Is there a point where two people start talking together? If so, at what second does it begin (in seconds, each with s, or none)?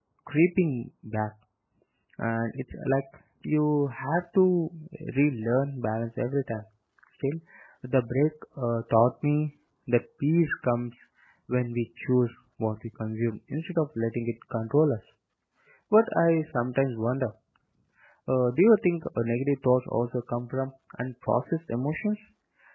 none